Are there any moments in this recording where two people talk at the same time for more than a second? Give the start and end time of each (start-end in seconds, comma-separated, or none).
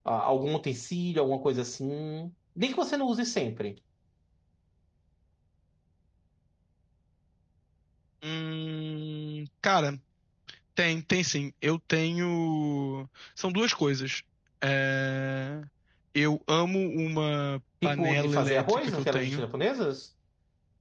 17.8-19.4